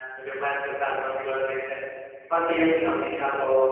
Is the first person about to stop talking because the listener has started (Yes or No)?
No